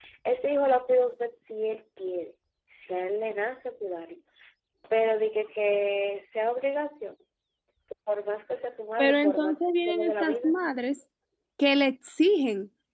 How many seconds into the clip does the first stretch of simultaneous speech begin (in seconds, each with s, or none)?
9.0 s